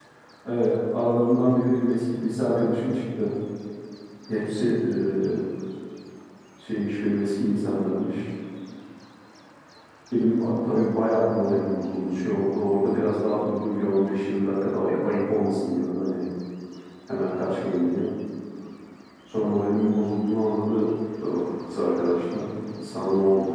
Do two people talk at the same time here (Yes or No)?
No